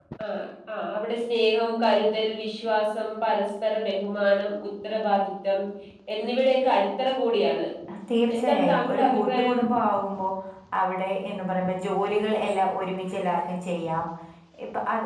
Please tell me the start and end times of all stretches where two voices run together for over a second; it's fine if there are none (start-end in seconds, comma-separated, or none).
8.3-9.6